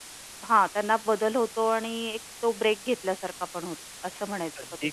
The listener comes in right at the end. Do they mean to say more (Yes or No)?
Yes